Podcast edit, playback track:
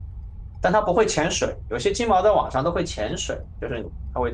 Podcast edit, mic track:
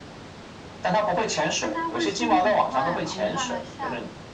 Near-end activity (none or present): present